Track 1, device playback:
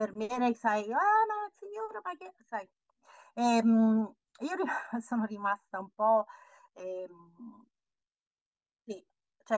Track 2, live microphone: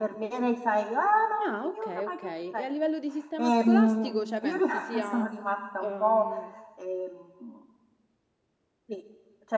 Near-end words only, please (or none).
ah, ok, ok. E a livello di sistema scolastico, cioè pensi sia... ehm,